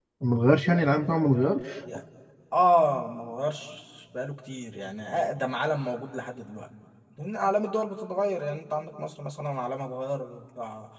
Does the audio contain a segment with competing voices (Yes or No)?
No